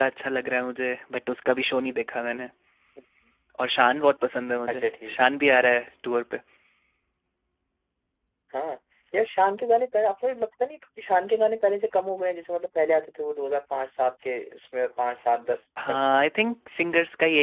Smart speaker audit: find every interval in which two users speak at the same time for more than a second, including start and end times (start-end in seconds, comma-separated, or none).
none